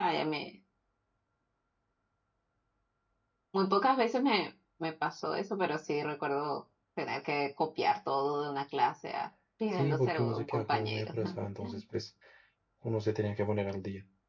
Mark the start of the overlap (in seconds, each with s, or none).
9.7 s